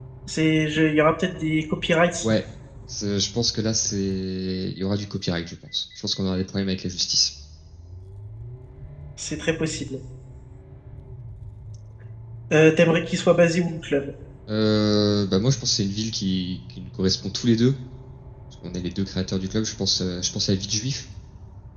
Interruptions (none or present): none